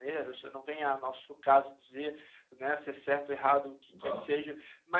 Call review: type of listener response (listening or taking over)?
listening